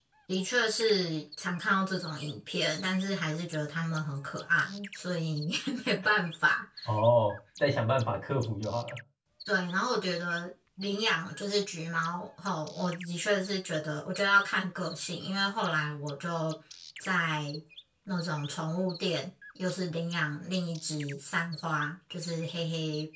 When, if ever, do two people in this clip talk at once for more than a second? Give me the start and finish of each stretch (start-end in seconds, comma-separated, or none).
none